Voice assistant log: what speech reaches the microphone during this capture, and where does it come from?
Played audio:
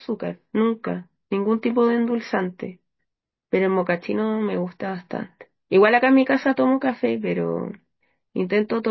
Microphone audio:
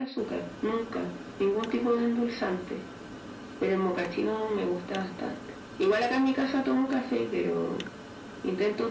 echo only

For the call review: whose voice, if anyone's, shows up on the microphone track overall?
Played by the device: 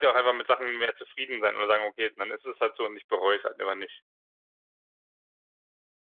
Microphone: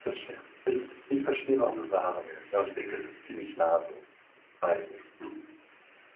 user only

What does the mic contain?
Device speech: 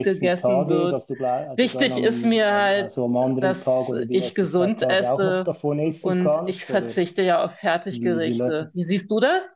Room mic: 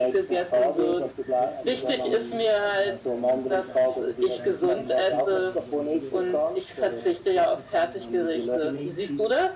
both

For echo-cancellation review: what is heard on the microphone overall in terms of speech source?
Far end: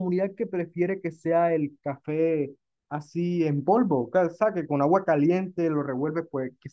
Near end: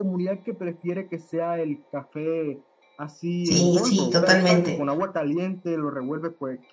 both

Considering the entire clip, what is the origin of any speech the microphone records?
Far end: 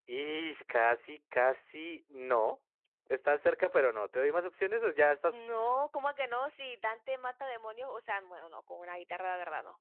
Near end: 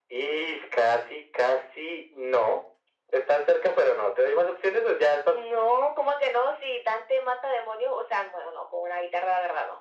echo only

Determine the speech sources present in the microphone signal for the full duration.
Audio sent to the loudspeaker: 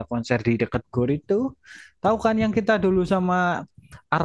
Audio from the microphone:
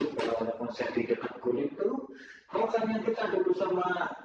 echo only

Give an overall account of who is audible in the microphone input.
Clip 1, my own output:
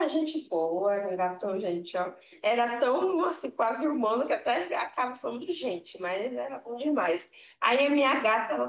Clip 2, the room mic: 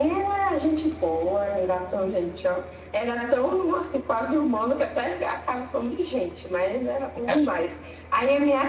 both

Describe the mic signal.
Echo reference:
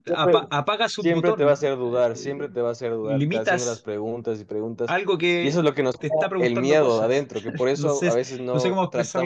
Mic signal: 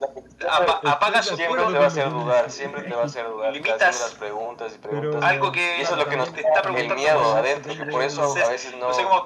both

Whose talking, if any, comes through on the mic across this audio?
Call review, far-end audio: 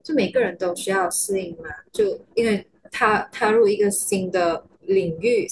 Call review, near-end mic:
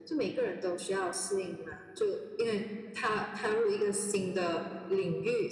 echo only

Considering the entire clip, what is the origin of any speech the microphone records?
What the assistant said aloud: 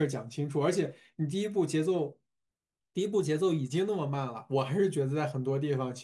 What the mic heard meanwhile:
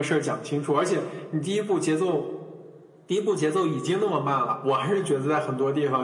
echo only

